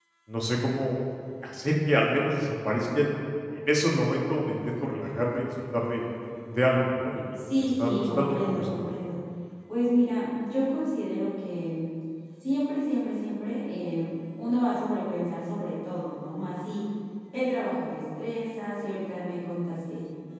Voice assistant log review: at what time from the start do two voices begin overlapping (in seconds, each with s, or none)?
7.4 s